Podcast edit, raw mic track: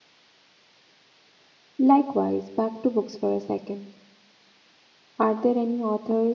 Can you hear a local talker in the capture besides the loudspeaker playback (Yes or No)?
Yes